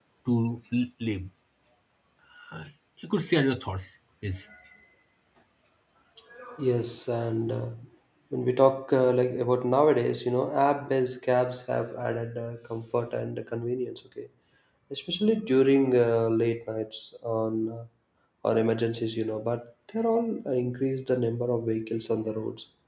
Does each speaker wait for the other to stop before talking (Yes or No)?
Yes